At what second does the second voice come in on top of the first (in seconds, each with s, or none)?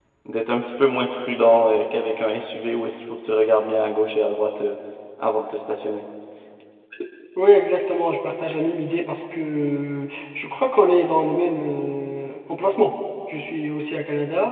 none